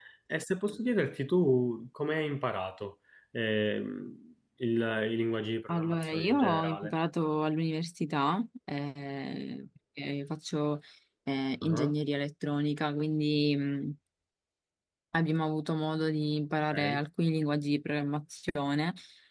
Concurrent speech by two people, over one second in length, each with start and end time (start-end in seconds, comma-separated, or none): 5.7-6.9